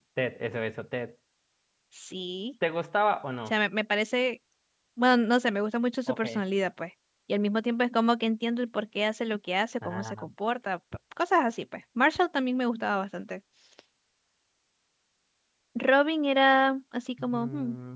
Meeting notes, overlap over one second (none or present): none